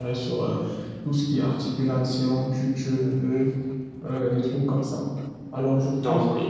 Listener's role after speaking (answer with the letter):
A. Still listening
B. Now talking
A